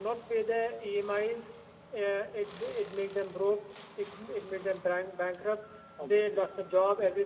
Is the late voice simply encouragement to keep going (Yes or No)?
Yes